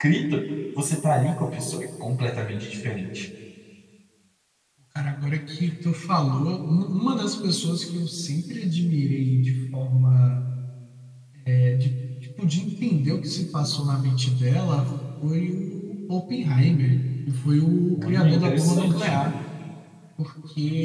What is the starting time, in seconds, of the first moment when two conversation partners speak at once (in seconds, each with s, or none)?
18.0 s